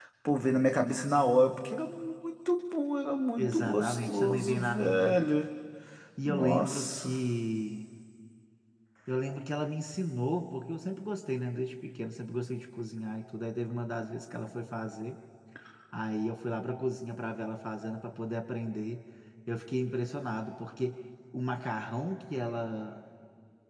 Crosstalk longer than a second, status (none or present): present